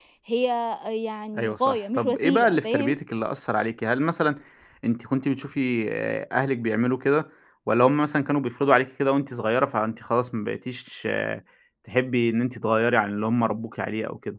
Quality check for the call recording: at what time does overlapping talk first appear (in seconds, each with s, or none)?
1.4 s